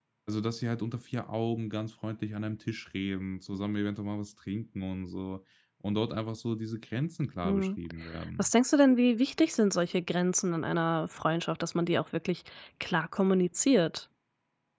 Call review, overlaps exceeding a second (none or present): none